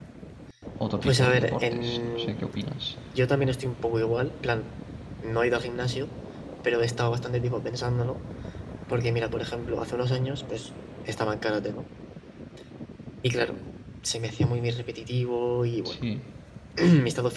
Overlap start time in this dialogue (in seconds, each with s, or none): 1.0 s